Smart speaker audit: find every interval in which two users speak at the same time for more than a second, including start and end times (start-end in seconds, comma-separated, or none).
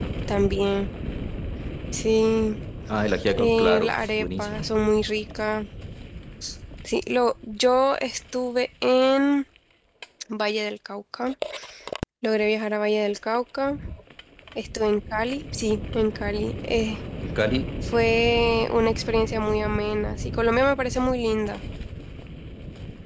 3.4-4.8